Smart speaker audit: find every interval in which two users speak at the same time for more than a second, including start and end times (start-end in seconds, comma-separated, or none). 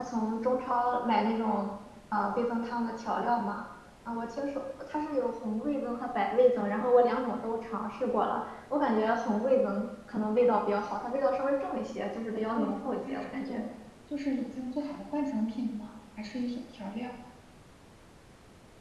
12.3-13.6